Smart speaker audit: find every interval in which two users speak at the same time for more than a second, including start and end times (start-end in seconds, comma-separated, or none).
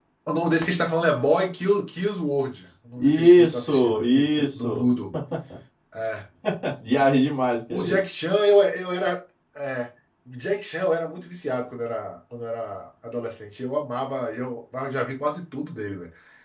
3.0-4.8